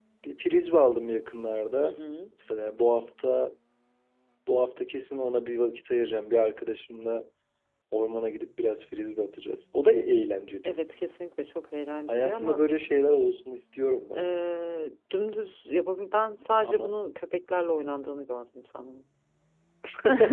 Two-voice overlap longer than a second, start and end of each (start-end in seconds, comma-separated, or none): none